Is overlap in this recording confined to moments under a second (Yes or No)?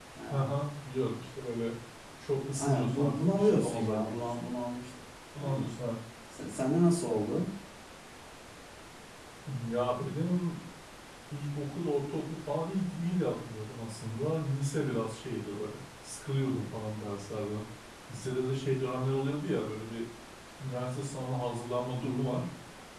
No